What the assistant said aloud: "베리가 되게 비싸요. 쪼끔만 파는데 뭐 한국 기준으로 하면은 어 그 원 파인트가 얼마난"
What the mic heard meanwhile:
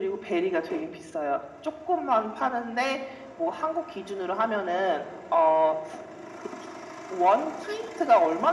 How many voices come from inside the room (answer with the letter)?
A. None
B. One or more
A